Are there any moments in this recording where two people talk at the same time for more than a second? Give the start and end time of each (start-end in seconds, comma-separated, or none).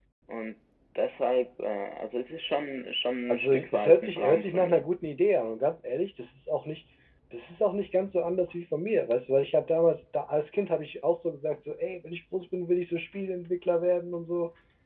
3.3-4.9